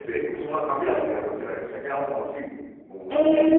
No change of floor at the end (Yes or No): No